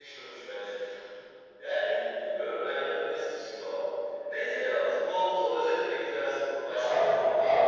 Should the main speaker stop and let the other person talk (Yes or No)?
Yes